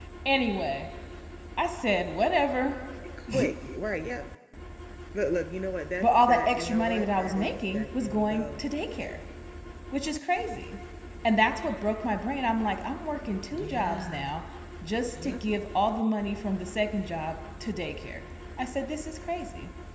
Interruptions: present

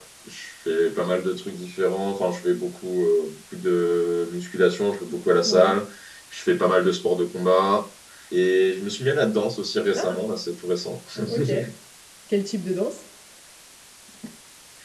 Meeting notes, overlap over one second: none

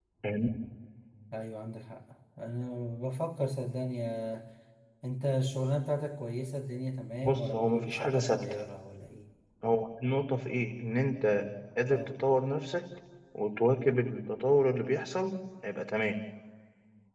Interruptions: present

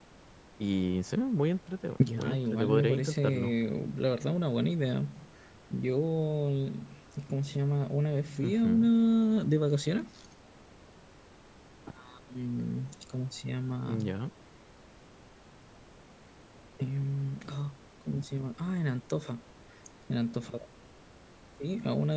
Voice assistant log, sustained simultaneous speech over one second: present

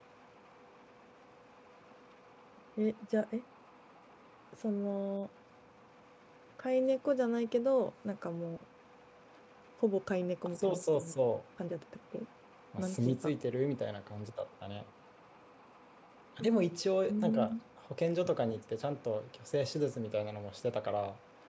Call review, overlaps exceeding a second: none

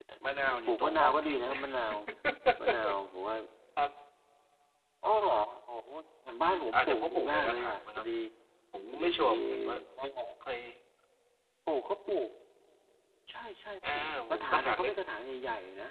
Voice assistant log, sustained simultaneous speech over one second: present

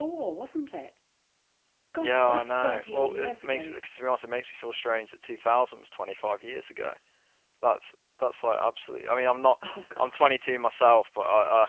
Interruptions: present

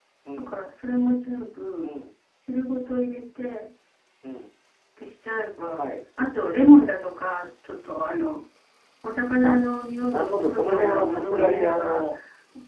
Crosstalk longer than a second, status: present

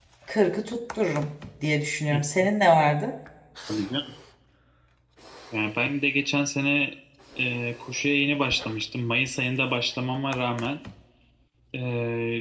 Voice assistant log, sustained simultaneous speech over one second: none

